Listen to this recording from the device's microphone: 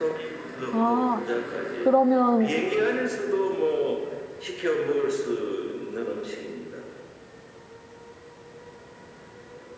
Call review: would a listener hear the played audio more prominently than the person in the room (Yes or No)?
No